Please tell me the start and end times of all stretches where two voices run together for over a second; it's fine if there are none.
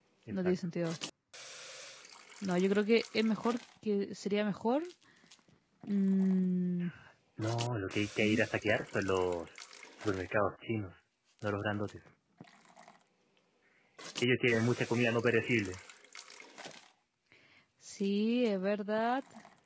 none

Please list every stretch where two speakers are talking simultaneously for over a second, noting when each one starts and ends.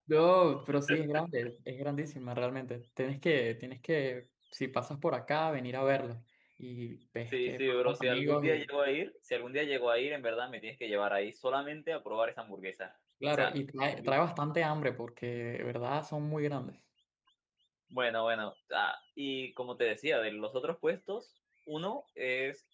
7.3-8.6

